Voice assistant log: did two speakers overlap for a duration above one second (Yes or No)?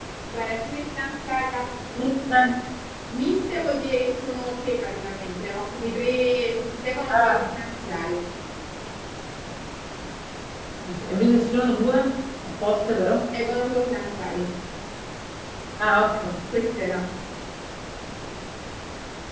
No